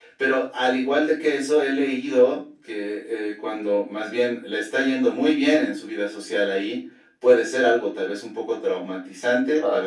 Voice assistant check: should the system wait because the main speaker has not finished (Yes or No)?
Yes